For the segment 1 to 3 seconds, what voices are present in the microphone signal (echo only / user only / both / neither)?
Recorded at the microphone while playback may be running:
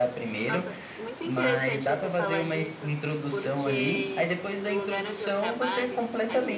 both